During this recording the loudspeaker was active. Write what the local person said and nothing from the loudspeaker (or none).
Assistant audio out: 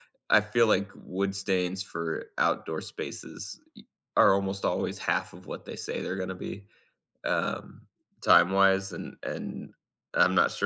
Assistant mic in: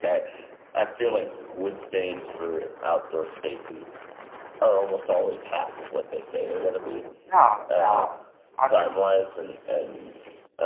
yeah. No, I mean.